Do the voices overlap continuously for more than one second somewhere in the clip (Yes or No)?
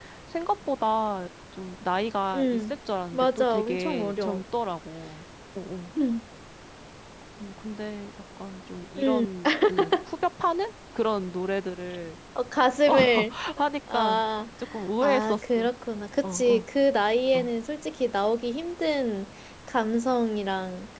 Yes